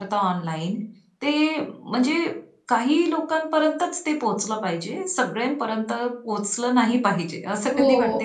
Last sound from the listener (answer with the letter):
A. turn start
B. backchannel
A